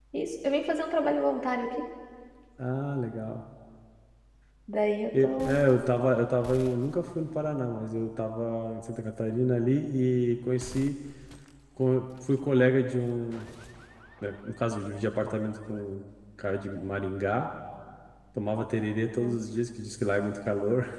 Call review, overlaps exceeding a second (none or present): none